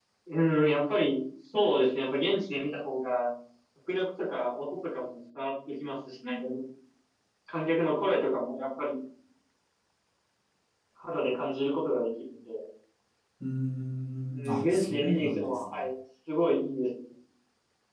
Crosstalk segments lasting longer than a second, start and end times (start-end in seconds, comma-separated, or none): 14.5-15.8